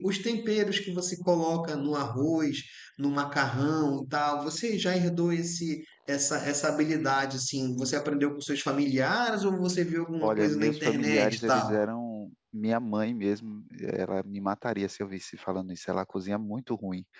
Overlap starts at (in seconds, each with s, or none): 10.2 s